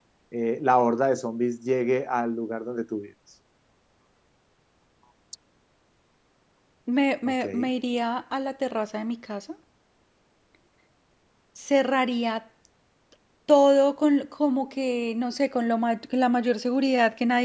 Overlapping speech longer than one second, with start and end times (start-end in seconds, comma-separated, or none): none